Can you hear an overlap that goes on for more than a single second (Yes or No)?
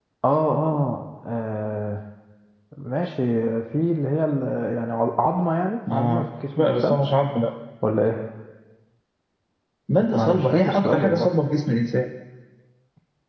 Yes